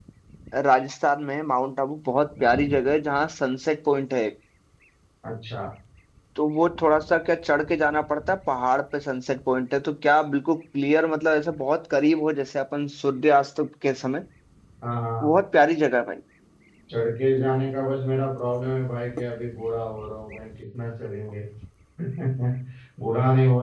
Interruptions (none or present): none